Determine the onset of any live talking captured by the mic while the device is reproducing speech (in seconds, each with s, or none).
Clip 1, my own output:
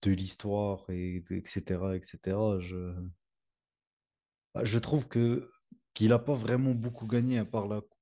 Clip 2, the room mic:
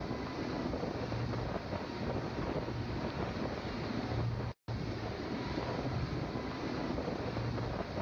none